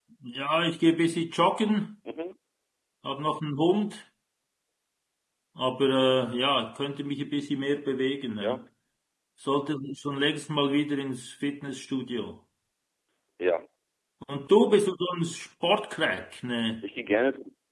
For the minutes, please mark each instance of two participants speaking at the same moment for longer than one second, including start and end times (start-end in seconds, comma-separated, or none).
none